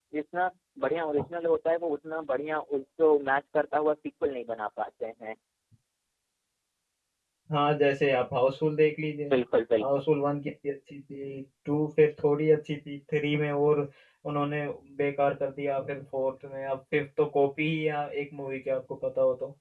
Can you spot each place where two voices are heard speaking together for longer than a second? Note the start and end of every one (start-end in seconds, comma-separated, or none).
none